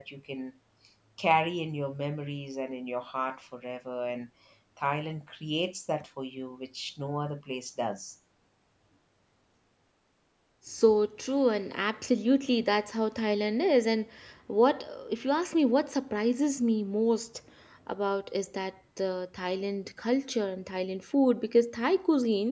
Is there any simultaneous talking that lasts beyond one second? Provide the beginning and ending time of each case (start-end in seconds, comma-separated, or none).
none